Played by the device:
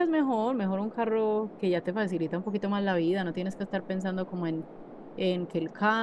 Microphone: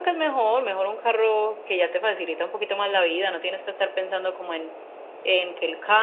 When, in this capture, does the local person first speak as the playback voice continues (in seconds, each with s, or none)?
none